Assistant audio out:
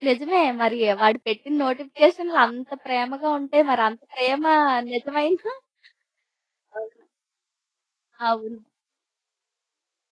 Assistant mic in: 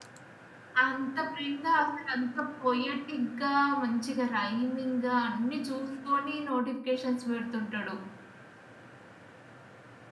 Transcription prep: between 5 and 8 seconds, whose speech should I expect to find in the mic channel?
user only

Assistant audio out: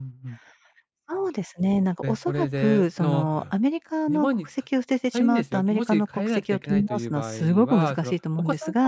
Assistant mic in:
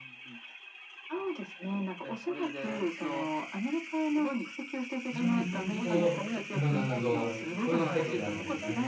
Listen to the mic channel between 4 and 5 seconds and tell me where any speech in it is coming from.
echo only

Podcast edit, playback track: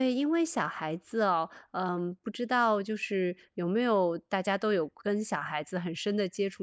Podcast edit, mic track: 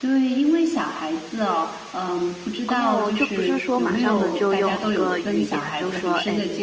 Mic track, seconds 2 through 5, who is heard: both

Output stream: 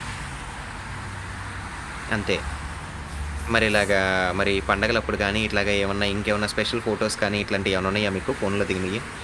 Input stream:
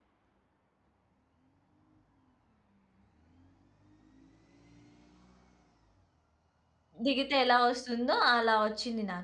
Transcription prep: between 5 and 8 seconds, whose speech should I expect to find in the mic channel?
user only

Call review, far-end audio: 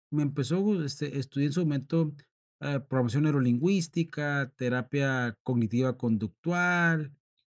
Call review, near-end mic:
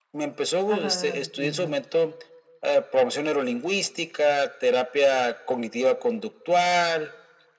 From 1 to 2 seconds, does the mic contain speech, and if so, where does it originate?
both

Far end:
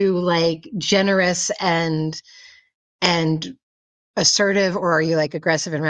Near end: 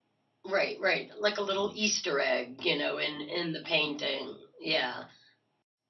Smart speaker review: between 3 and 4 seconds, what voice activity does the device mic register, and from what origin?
user only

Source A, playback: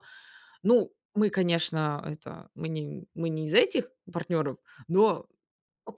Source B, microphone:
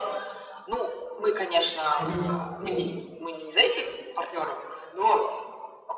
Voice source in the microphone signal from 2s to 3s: both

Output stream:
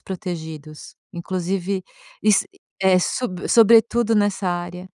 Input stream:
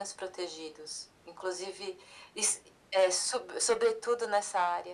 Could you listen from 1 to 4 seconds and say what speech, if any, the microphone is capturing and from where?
echo only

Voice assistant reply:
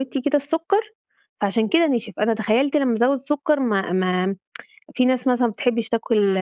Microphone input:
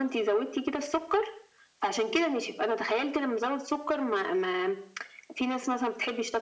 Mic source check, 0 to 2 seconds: echo only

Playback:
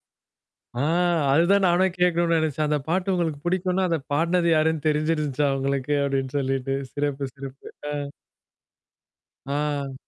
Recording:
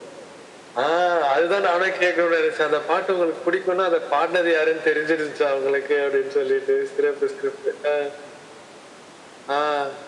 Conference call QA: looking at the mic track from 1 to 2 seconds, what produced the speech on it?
echo only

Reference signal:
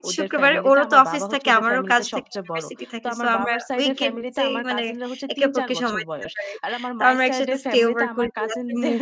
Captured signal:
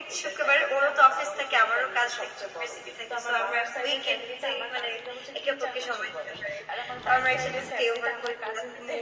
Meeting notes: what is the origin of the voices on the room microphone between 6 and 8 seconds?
echo only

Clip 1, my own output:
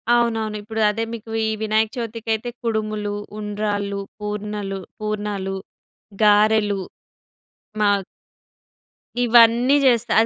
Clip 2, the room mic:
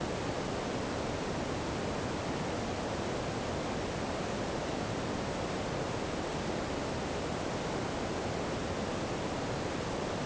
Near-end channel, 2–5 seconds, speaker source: neither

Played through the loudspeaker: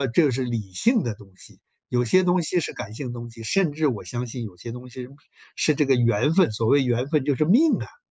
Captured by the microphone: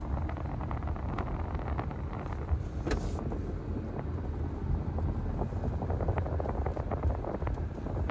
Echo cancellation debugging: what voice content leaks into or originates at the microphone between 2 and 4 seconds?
neither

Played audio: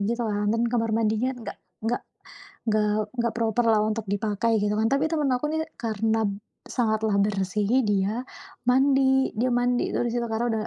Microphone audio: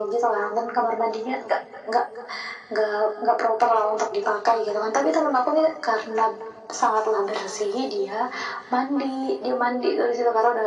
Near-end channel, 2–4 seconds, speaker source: echo only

